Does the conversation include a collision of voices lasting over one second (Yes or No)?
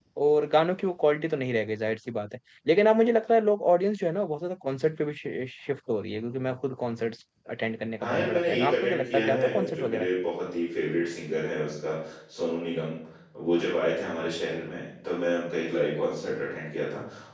Yes